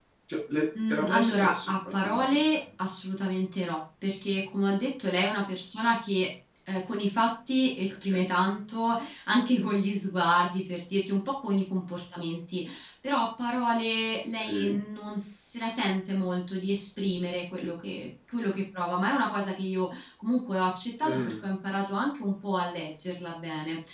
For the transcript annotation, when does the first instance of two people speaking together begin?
1 s

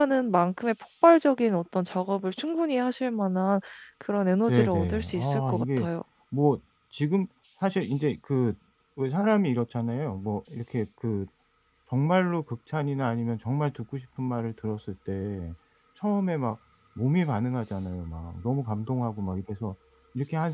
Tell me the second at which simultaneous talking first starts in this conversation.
4 s

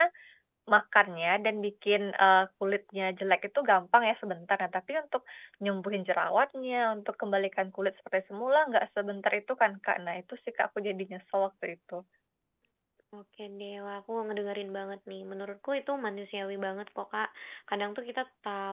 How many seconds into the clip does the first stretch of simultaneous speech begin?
none

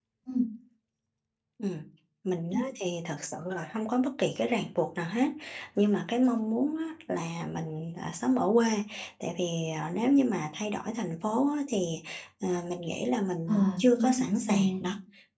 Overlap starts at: 13 s

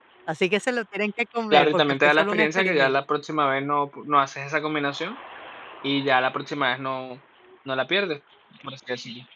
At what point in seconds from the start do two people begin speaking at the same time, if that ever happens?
2 s

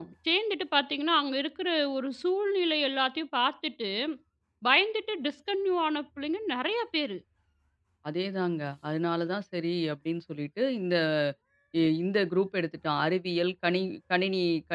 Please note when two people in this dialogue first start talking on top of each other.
none

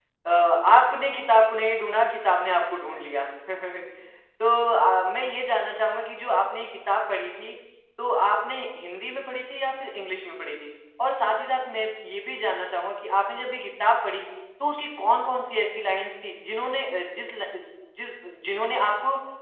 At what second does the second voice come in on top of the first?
none

